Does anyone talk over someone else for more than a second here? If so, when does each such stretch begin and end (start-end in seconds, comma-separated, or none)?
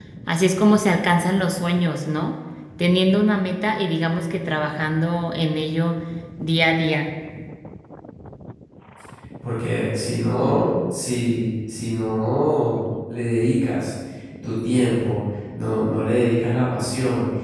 none